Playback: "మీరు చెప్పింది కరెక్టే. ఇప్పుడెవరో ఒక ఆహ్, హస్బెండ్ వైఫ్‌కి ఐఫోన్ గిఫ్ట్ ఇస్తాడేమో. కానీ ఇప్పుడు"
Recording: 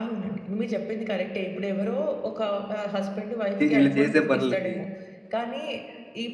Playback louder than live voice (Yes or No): No